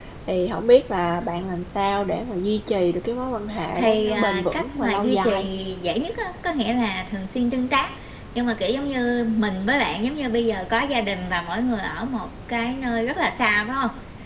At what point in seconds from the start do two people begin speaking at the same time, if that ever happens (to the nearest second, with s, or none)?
4 s